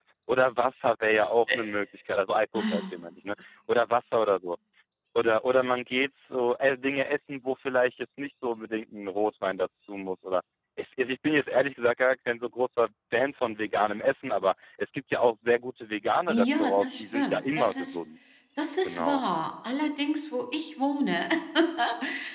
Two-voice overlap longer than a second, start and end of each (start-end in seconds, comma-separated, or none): 16.3-18.0